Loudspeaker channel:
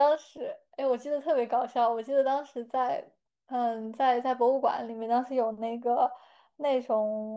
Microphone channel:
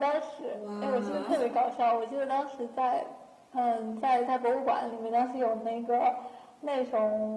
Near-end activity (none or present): present